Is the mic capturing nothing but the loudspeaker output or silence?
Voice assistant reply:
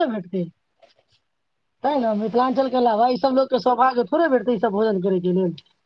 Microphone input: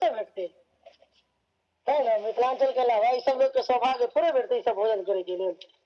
Yes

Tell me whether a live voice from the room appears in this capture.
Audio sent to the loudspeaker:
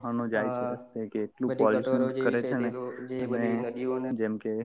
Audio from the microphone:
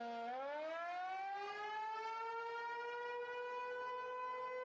No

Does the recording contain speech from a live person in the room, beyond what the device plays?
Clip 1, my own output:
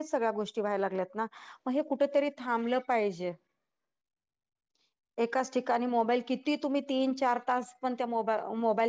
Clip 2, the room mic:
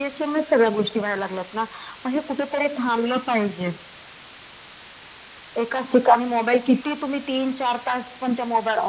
No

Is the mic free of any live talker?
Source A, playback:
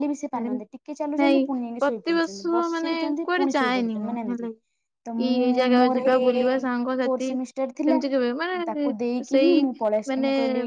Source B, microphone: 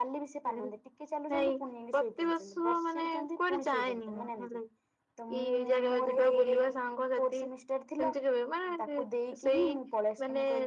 Yes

